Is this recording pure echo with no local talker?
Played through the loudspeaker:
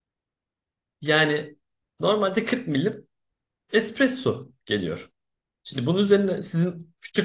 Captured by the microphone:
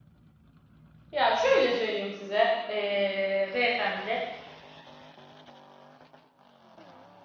No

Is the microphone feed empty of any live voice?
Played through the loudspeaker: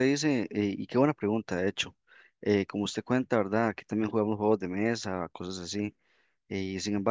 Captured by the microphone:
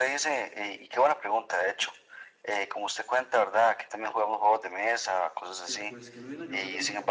No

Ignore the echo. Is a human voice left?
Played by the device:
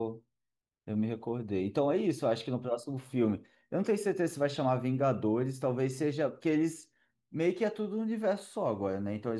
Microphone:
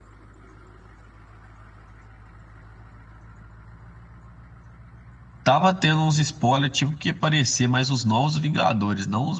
Yes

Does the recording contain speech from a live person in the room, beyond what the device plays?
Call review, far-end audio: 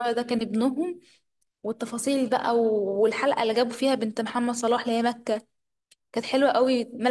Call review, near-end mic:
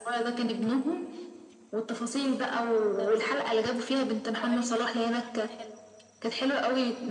Yes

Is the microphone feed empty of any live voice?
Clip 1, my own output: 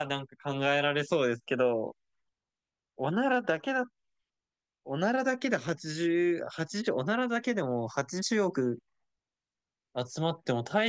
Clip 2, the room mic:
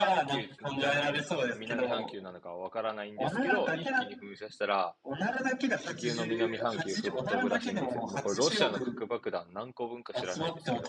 No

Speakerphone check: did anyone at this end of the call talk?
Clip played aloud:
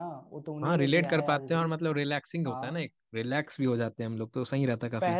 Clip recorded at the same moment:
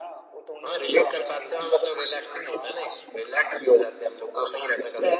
No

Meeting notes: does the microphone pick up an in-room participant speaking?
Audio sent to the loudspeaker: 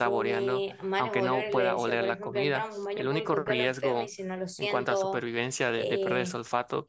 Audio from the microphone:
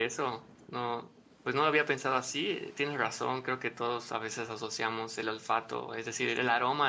Yes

